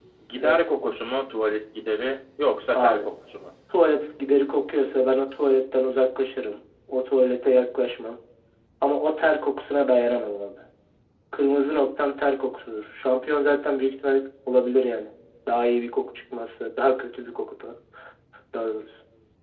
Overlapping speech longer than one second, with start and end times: none

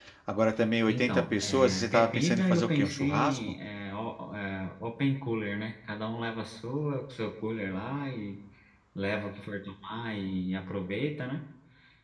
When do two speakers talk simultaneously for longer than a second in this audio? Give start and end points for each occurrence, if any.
0.9-3.6

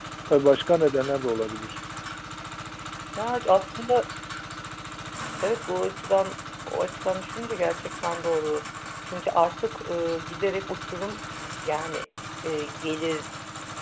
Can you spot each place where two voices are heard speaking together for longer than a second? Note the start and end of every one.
none

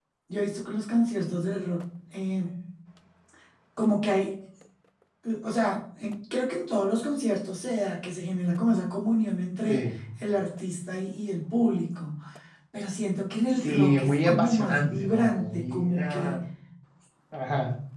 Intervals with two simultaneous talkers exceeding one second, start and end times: 13.6-16.4

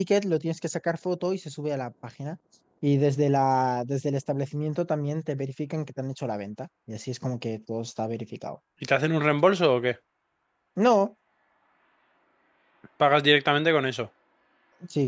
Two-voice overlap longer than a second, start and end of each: none

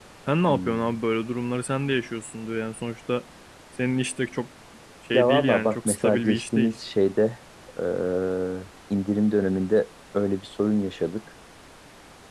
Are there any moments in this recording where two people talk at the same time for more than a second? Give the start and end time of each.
5.1-6.8

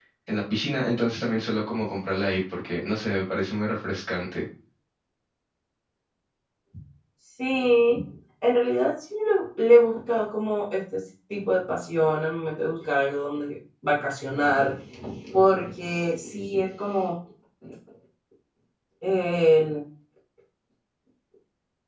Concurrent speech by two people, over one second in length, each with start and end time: none

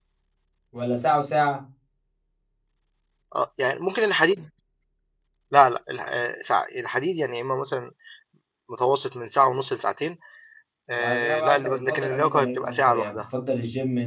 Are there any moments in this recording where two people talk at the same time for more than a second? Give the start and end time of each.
11.0-13.2

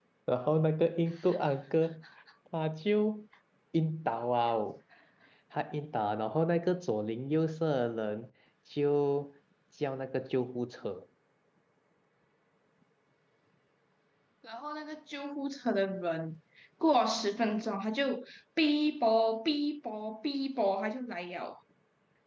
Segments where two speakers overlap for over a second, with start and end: none

